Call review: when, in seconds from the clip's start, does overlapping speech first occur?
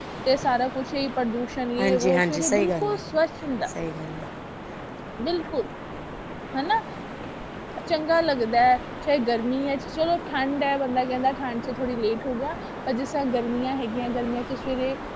2 s

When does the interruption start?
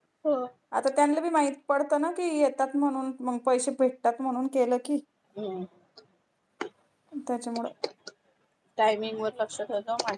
none

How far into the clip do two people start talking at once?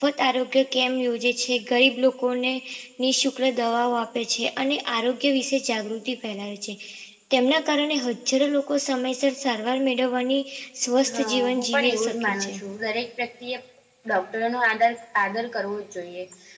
11 s

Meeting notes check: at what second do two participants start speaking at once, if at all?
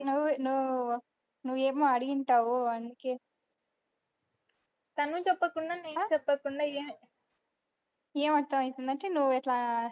none

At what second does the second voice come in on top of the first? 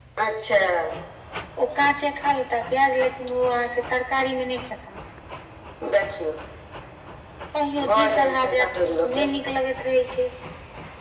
8 s

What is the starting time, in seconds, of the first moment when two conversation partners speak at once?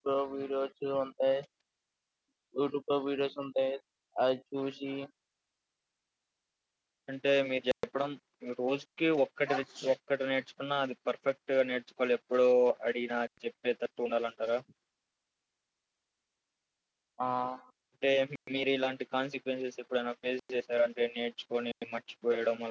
none

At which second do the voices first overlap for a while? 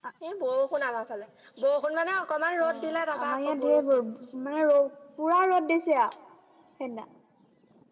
3 s

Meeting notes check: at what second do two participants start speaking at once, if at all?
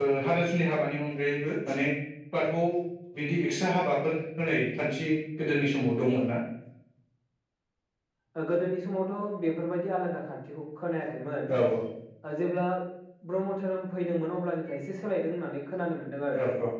none

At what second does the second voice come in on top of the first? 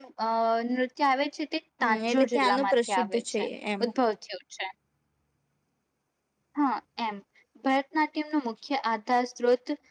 2 s

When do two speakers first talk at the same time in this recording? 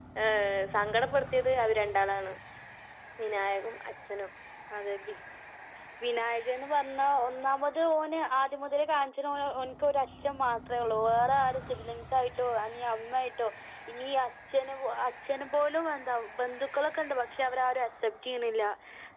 none

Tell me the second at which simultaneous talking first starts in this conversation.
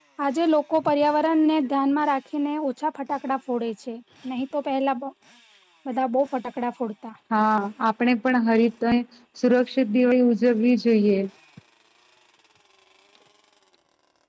none

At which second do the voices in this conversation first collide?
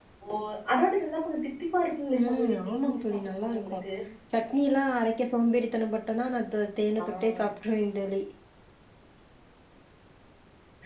2 s

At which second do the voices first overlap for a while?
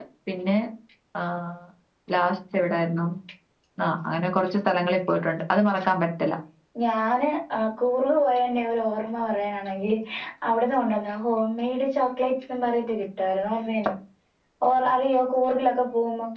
none

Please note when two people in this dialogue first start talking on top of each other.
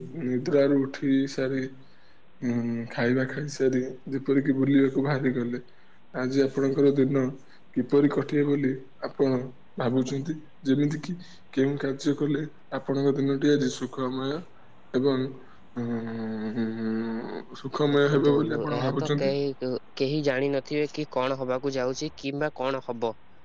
18 s

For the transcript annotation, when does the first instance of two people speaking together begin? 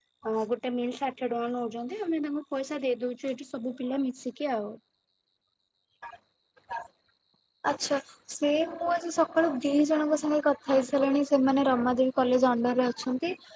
none

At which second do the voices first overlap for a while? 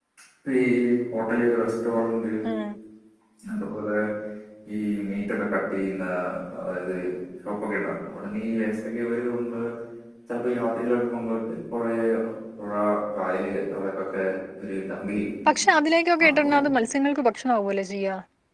none

